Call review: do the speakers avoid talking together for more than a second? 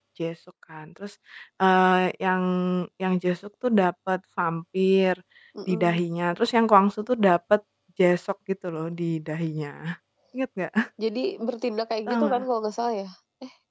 Yes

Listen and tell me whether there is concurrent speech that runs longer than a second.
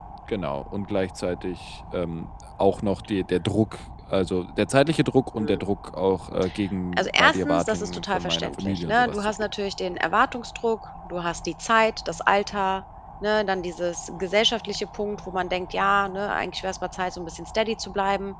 Yes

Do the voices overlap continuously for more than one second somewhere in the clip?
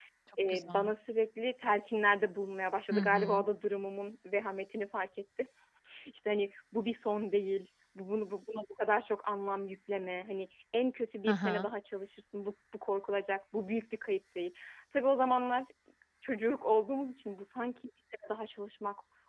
No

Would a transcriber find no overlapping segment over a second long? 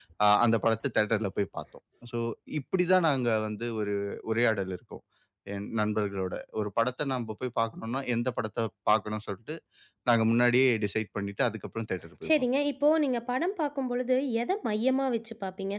Yes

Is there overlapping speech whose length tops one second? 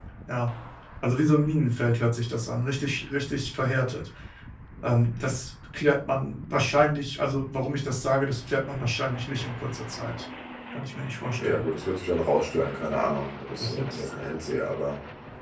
No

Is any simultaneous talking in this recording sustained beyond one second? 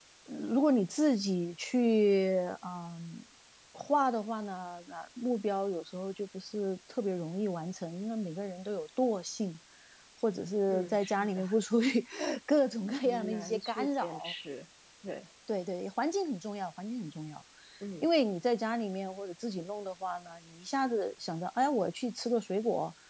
Yes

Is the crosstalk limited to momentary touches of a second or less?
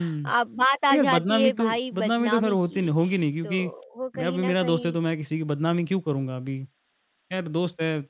No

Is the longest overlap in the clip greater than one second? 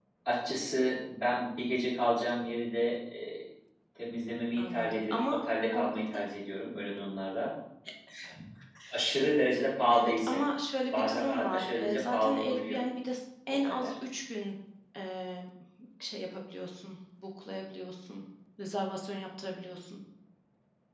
Yes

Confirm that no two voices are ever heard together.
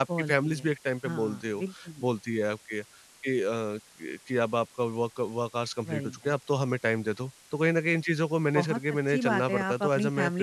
No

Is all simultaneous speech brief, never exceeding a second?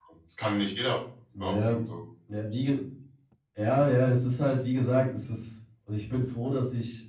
Yes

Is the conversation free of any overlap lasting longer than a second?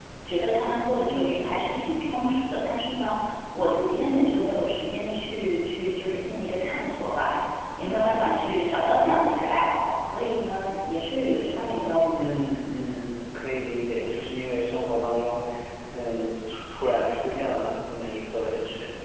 Yes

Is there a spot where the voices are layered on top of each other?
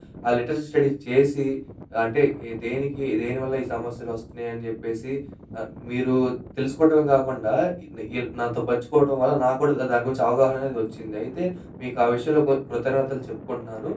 No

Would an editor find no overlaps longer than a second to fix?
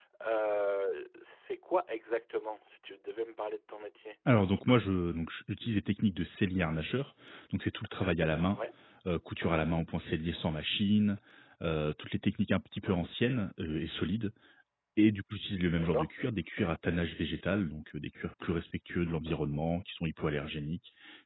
Yes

